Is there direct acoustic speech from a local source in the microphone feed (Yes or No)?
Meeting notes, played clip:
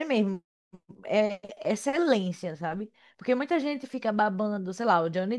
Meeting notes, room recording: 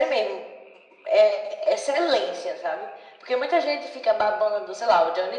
No